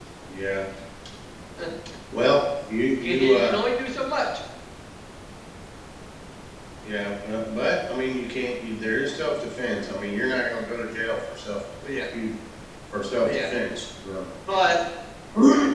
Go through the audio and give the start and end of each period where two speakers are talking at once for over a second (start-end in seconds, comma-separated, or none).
none